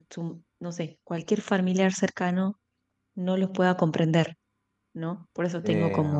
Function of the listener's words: listening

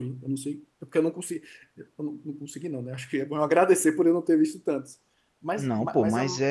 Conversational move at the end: taking over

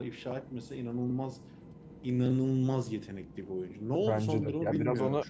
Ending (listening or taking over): taking over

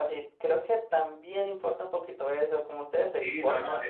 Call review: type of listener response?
taking over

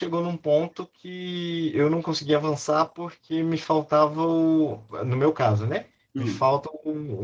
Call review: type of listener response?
listening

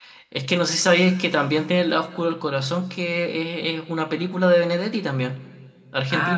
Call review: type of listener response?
taking over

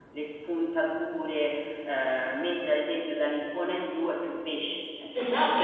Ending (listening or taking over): taking over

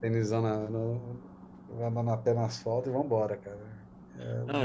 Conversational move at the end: taking over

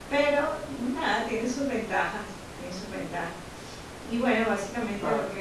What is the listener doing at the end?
listening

